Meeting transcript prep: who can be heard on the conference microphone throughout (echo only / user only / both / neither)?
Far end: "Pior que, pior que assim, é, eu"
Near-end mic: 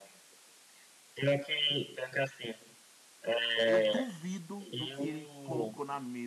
both